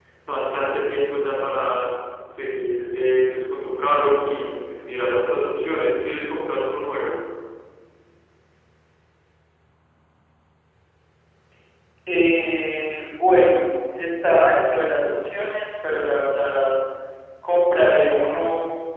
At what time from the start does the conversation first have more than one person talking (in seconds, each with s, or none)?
none